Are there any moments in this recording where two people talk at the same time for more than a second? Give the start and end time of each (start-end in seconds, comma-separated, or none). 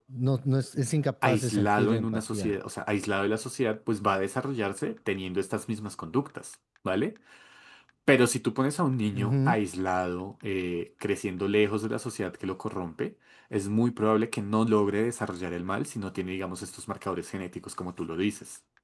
1.2-2.5